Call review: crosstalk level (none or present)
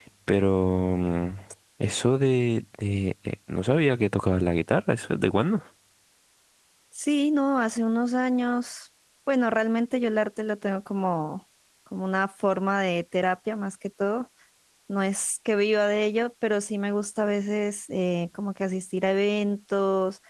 none